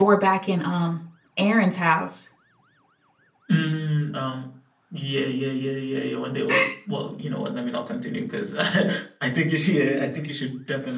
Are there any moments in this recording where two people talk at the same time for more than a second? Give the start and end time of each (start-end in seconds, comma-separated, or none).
none